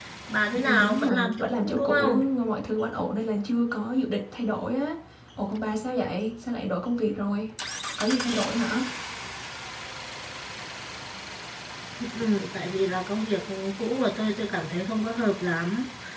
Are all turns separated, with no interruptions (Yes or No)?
No